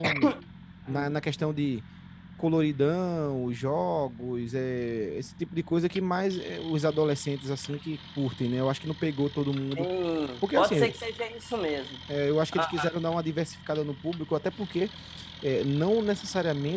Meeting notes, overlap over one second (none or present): none